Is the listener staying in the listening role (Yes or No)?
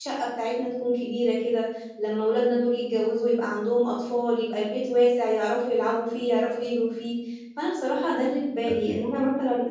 Yes